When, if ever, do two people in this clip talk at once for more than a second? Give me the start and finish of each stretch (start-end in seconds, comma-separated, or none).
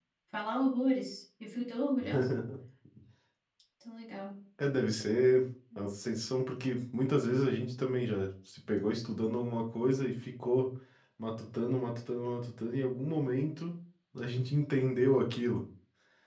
none